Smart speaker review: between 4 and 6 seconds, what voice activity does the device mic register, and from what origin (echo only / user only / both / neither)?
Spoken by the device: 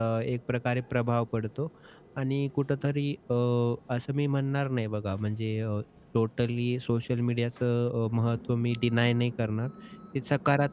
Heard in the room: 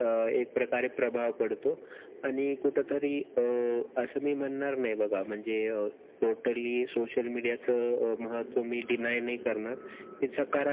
echo only